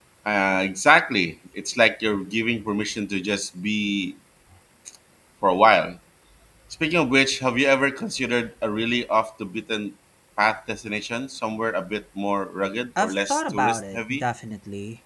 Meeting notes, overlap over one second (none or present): present